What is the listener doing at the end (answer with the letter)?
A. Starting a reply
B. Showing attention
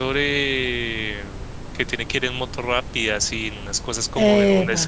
B